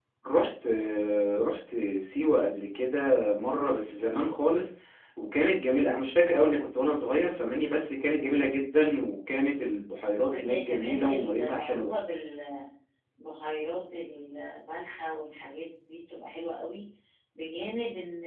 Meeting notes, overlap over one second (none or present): present